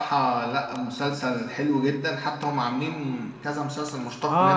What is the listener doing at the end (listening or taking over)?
taking over